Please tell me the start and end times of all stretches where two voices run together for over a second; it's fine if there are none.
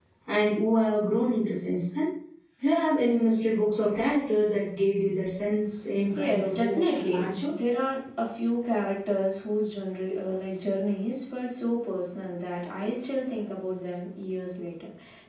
6.1-7.5

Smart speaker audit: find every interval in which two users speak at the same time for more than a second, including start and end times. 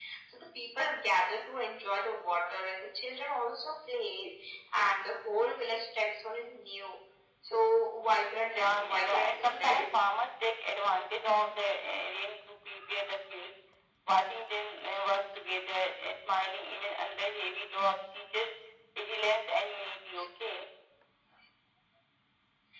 8.4-9.9

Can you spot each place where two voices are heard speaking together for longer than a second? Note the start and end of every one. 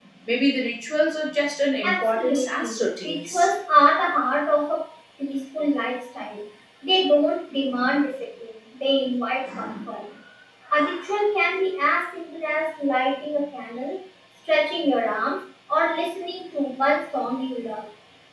1.8-3.5

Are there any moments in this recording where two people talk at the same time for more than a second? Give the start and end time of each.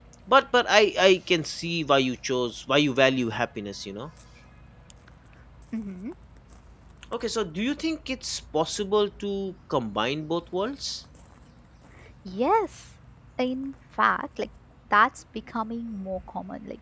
none

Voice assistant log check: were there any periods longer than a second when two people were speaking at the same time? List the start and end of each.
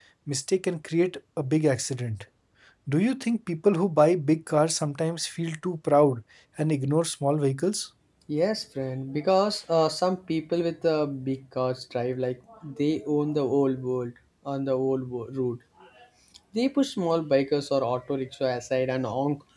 none

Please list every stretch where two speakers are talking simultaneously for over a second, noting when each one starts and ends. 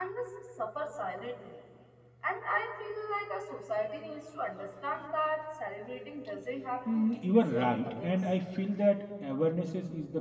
6.9-8.2

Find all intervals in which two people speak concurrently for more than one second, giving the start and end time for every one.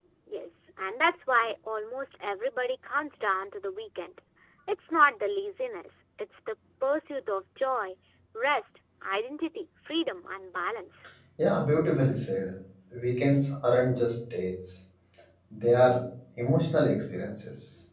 none

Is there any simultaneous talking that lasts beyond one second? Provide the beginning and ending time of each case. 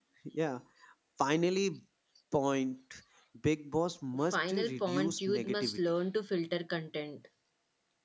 4.3-5.9

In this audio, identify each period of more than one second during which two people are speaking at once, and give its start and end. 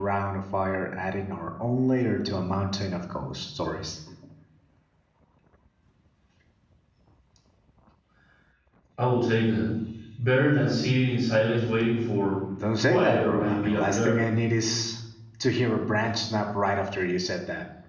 12.8-14.2

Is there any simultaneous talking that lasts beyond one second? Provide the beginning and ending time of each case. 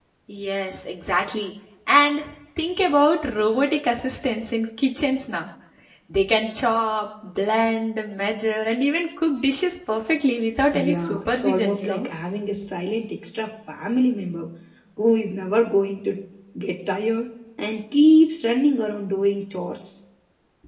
10.7-12.1

